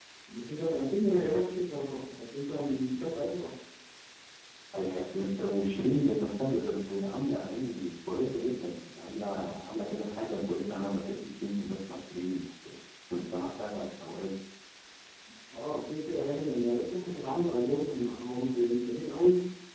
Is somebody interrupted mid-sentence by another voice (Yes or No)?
No